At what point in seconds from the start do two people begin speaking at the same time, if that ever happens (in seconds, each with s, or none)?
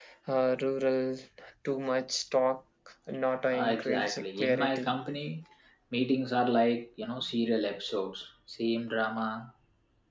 3.5 s